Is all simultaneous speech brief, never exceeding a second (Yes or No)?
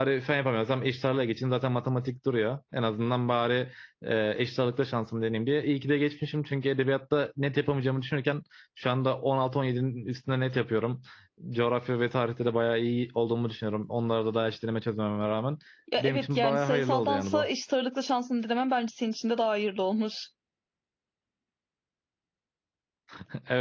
No